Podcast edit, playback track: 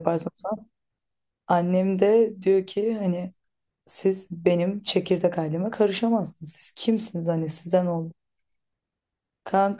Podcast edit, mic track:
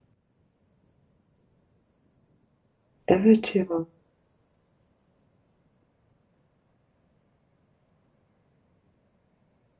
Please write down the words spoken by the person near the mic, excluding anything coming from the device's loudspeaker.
Evet ya.

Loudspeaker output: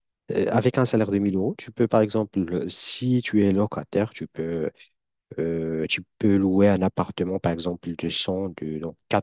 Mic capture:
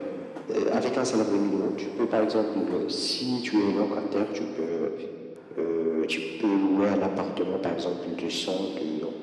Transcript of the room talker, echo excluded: none

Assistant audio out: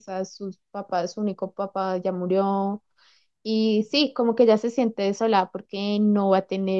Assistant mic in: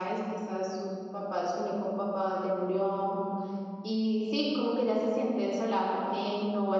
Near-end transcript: none

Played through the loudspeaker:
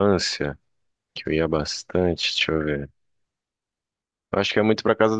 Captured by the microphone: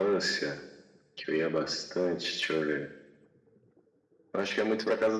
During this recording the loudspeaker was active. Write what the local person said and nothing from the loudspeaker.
none

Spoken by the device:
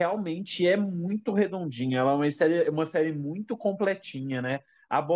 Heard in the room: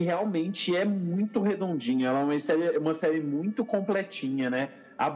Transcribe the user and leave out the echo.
none

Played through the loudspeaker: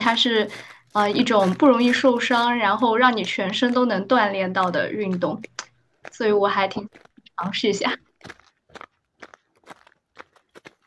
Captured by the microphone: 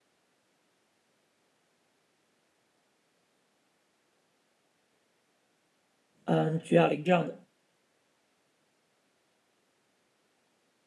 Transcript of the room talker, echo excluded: 嗯，举哑铃这样的。

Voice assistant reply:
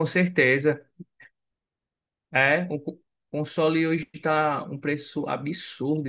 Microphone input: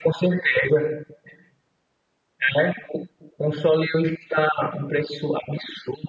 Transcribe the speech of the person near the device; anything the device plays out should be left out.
none

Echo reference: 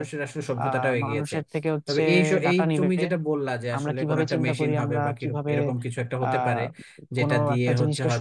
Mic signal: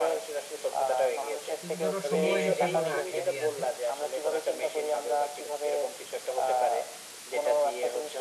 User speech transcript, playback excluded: কিন্তু ধরো সময়ের হিসেবে ওরা এগিয়ে আছে

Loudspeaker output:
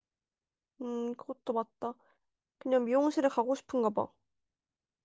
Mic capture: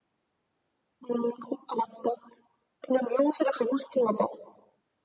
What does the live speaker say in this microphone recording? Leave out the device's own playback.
none

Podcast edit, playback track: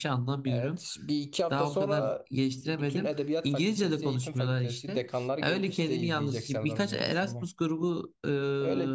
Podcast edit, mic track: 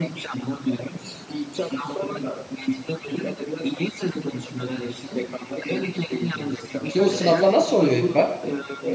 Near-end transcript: Ki o sınavlar nasıl oluyor İkbal?

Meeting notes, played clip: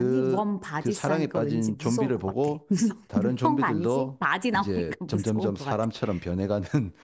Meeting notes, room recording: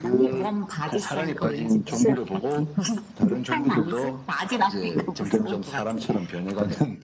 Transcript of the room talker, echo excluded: none

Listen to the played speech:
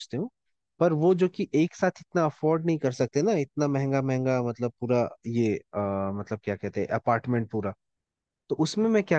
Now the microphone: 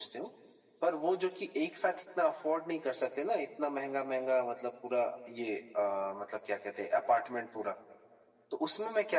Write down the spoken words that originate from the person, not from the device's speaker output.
none

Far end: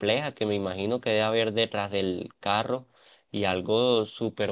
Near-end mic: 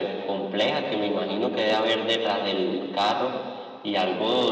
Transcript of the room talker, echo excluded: none

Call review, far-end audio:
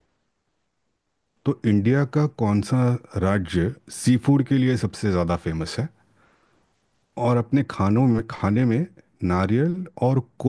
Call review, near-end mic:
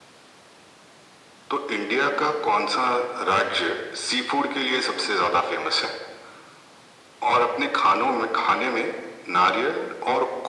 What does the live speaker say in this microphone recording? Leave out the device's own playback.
none

